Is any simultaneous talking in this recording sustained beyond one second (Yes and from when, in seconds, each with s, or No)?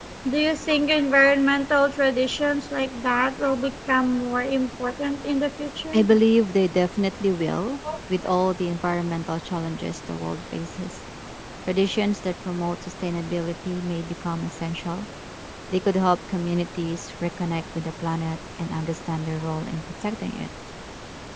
No